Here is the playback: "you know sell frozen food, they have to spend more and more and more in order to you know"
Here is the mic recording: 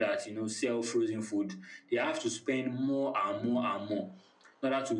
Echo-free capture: No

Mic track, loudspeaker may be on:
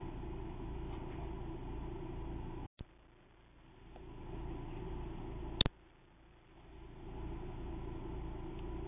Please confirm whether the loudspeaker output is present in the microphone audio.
No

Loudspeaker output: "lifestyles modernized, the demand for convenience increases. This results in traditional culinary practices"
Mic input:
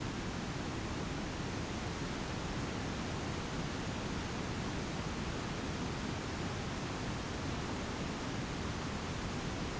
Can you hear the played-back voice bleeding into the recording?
No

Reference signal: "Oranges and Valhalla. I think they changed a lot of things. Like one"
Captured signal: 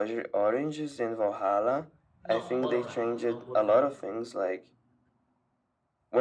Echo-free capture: No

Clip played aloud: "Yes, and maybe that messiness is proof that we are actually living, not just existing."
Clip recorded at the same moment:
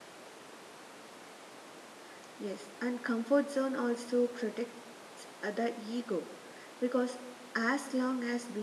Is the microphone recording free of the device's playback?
Yes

